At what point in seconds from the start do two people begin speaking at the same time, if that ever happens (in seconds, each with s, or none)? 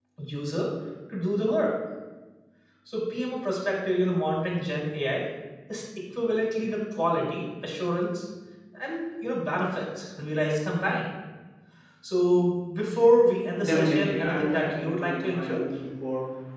13.6 s